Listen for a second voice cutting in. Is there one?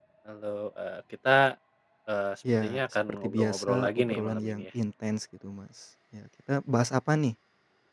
Yes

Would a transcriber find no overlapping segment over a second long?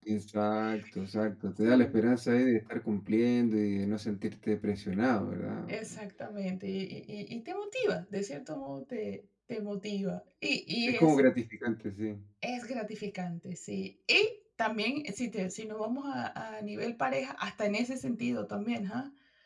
Yes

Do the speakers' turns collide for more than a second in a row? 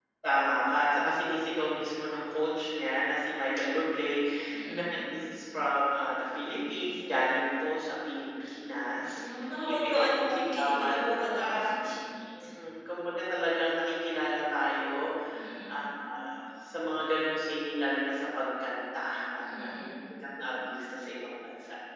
Yes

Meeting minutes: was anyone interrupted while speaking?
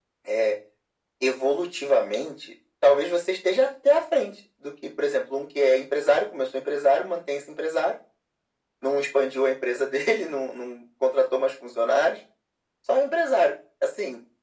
No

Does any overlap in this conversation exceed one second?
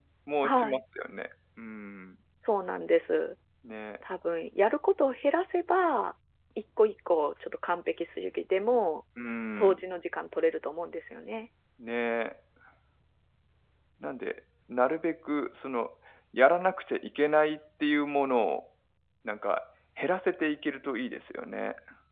No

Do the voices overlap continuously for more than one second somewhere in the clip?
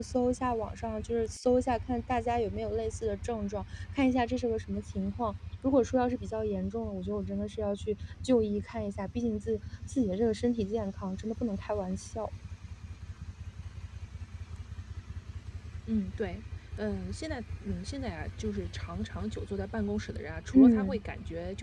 No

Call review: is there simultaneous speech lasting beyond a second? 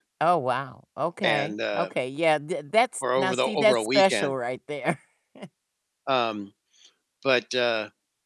Yes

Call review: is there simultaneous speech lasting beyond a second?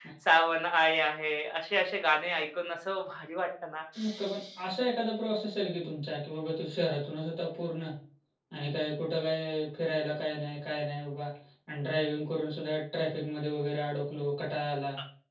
No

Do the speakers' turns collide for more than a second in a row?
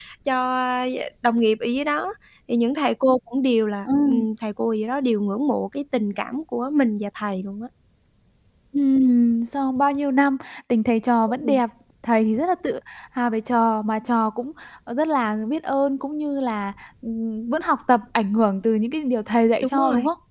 No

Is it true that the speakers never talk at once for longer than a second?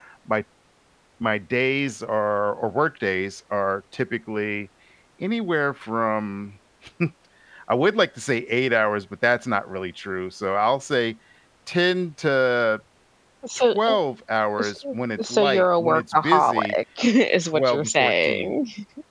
No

